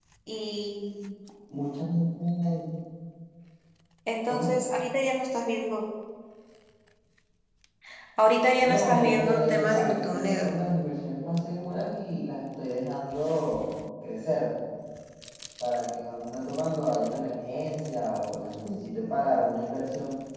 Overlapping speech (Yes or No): Yes